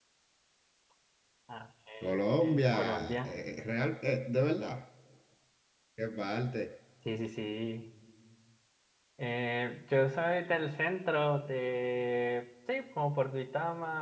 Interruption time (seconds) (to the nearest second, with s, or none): 2 s